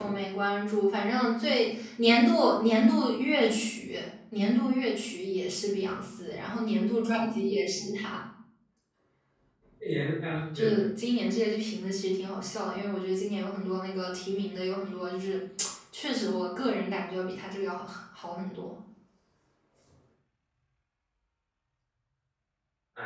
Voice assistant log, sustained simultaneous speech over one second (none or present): none